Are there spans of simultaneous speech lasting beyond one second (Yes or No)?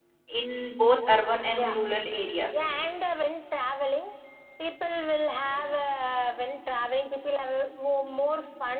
No